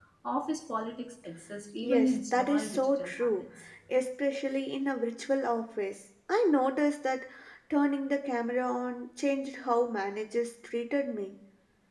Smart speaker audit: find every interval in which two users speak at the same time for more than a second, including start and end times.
1.8-3.4

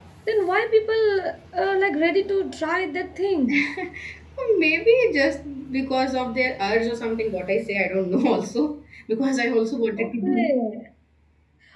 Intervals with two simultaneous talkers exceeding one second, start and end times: none

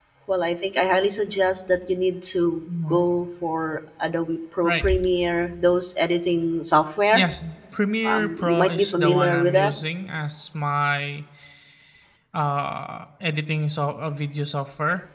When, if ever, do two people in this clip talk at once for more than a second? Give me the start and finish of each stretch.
8.0-9.7

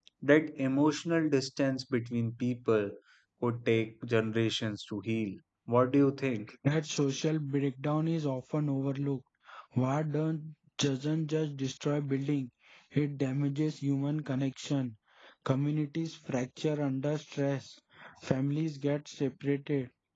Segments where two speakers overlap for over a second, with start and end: none

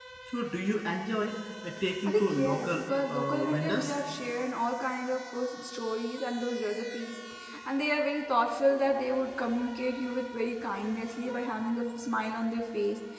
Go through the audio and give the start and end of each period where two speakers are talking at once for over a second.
2.0-4.0

